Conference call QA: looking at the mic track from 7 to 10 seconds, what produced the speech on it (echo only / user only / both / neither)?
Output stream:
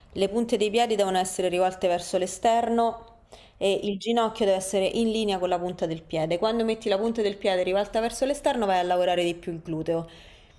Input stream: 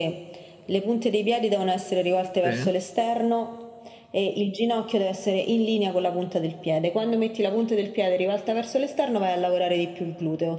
echo only